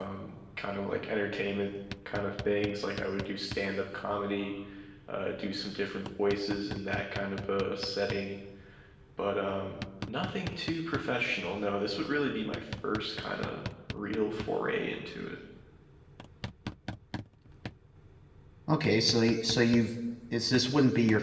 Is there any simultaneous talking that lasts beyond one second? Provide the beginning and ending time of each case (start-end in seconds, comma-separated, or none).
none